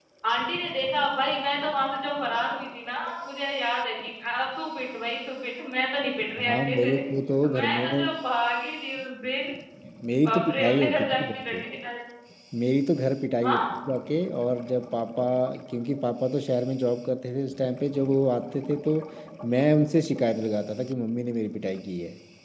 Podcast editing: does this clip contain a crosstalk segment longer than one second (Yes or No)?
Yes